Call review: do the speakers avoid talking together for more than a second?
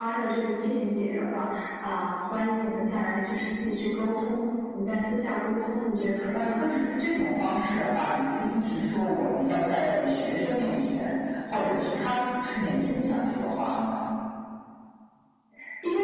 Yes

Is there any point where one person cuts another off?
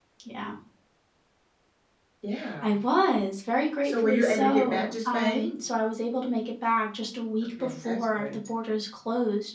Yes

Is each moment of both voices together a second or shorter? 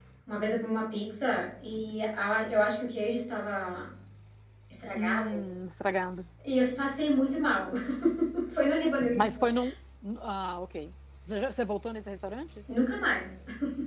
Yes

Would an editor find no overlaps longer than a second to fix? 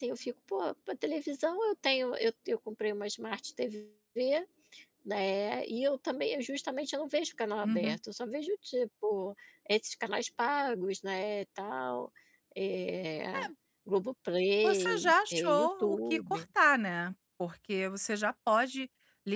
No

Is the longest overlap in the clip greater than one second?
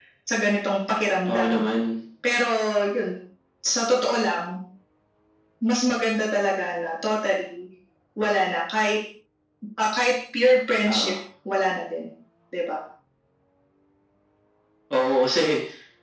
No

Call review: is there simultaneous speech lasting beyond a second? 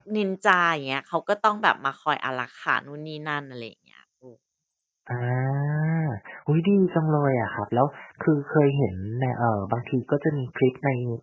No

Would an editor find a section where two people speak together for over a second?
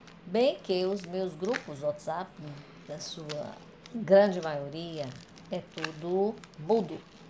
No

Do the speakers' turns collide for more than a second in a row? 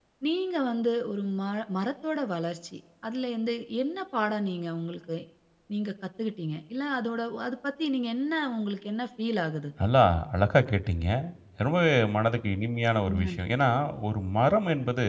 No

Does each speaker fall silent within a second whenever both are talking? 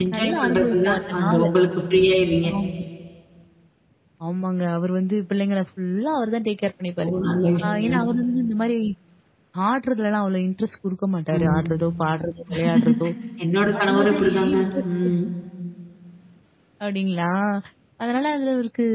No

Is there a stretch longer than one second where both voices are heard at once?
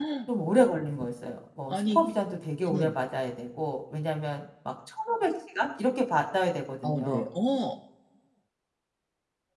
No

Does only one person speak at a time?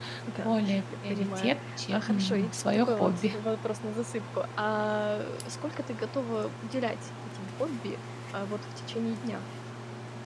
No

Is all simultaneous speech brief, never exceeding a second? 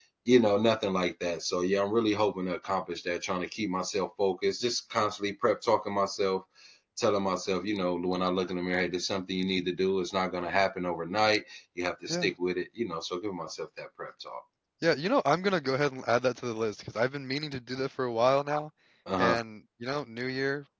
Yes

